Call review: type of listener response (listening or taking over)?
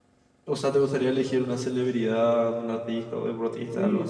taking over